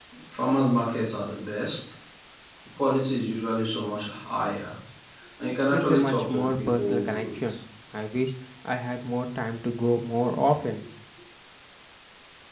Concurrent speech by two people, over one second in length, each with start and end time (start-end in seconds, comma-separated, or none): 5.7-7.6